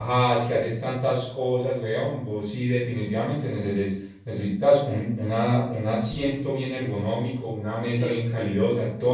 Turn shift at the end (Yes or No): No